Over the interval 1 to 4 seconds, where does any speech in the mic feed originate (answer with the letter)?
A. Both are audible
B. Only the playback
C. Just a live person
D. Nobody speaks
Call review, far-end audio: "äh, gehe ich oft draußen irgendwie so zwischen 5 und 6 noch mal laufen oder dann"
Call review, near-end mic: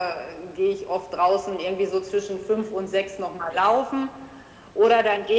B